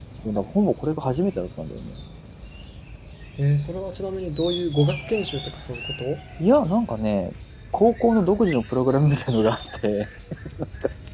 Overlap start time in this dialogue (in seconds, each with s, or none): none